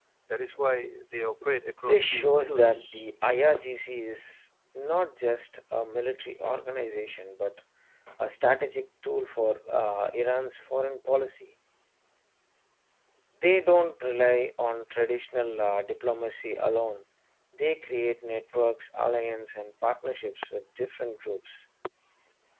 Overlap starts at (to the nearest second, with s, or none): 2 s